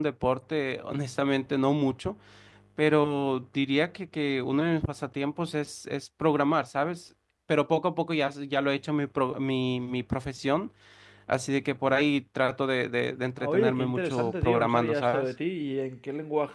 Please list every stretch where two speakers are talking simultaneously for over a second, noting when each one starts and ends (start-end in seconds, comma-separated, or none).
13.4-15.2